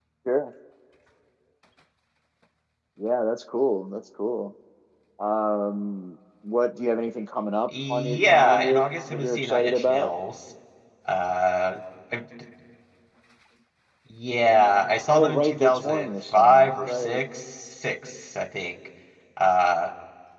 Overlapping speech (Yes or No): Yes